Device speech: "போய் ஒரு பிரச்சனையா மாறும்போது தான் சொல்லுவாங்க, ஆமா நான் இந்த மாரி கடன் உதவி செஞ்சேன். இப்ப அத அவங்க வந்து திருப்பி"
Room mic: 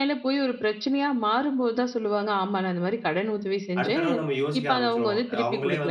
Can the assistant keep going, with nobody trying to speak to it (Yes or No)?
No